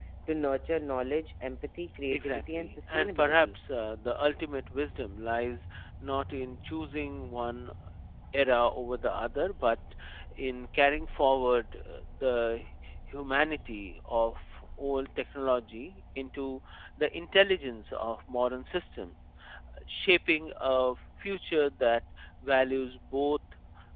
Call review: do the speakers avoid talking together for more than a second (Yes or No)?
No